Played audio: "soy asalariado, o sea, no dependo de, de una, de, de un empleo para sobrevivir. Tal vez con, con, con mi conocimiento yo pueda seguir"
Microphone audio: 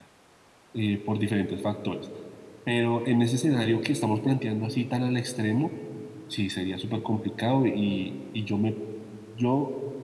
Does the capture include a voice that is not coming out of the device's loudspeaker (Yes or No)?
Yes